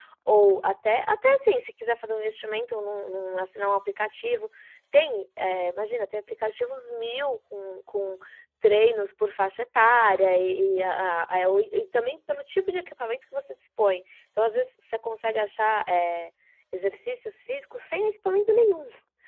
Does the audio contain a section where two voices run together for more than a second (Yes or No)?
No